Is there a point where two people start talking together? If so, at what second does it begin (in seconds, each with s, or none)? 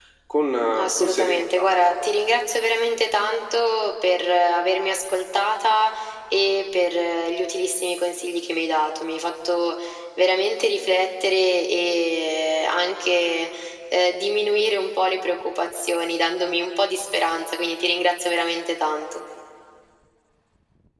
0.8 s